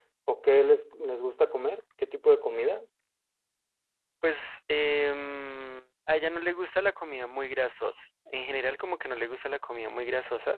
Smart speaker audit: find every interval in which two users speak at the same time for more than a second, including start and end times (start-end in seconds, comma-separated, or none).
none